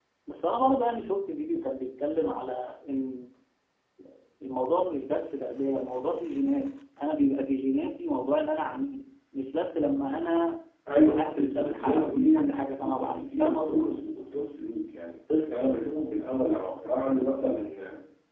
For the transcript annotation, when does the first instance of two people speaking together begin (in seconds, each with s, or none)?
10.9 s